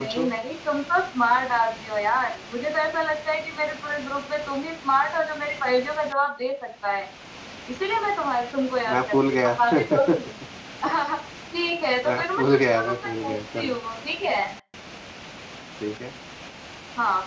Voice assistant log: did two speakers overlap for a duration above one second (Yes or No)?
Yes